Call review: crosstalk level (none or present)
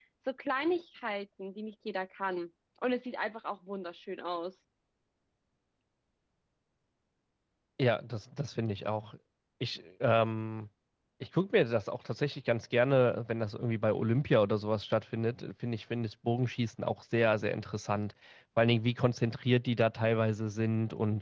none